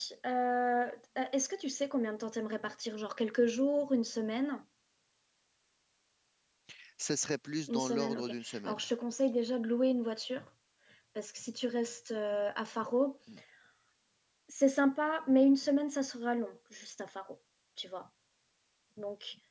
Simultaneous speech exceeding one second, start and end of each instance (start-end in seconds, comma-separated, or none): 7.7-8.9